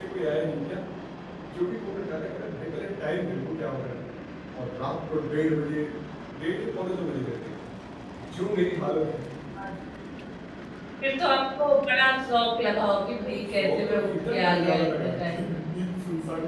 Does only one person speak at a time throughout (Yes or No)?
No